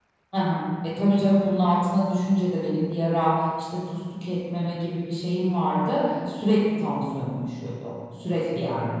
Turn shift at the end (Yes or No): Yes